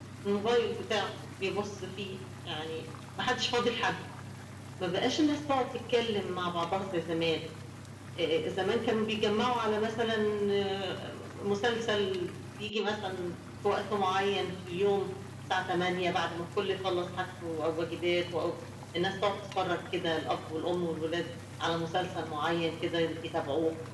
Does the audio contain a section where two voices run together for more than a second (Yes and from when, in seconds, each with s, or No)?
No